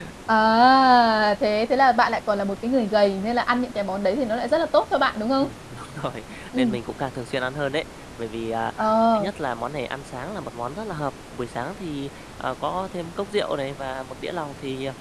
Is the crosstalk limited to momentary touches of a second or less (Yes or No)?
Yes